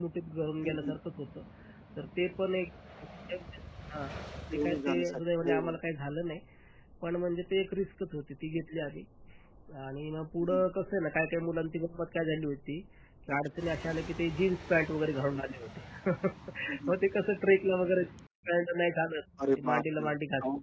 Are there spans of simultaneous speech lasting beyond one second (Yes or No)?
Yes